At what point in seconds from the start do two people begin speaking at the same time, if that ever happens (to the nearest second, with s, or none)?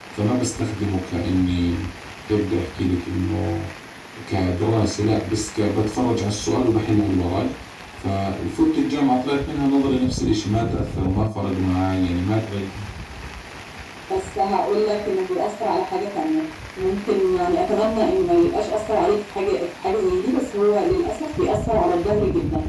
none